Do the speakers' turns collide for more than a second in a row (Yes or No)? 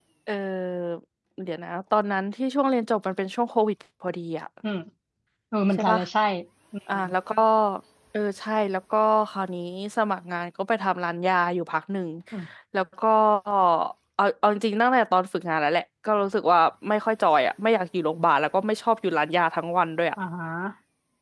No